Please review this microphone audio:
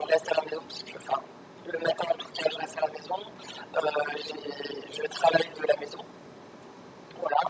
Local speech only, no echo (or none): none